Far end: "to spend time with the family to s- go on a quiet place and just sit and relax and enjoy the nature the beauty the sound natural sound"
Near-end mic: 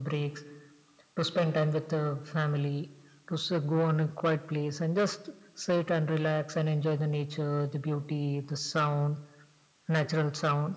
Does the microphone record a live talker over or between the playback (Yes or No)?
No